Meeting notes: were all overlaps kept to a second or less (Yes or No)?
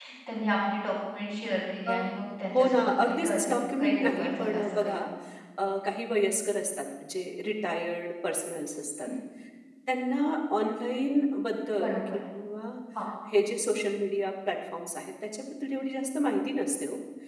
No